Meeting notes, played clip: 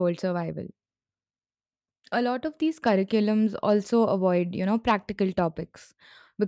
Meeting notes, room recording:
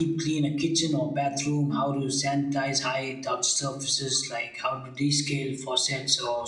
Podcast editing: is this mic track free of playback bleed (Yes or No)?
Yes